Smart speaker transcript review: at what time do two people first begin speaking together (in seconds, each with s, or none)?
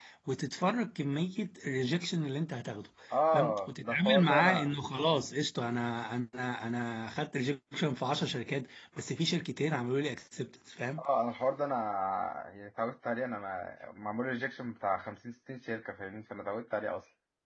3.3 s